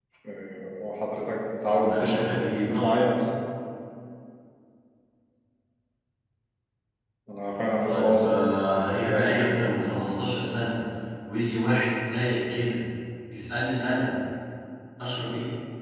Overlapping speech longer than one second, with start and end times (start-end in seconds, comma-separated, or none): 1.6-2.9, 7.8-9.4